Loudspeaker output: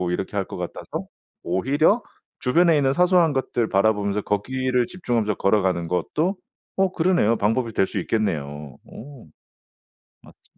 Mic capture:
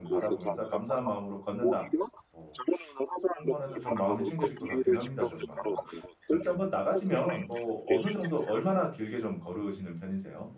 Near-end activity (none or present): present